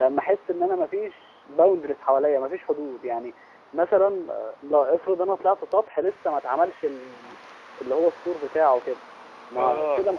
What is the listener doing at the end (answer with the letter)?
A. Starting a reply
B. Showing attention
B